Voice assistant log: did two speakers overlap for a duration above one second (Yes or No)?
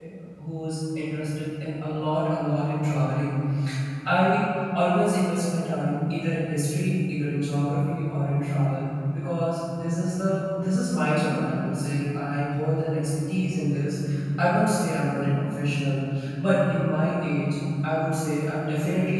No